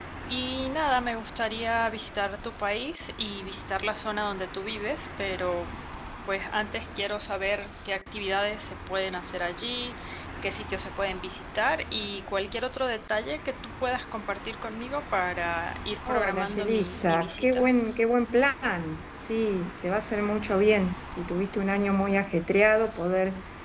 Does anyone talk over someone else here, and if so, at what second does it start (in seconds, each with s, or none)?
16.1 s